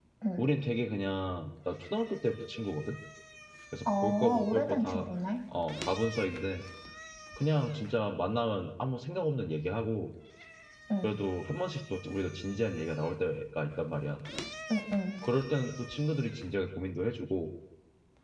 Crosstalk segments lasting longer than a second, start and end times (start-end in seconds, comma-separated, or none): 3.8-5.0